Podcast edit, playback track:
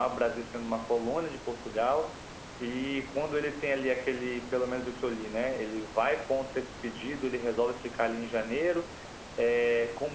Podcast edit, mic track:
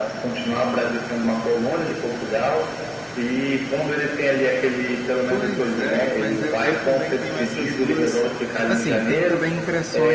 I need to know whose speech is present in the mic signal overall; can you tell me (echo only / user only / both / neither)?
both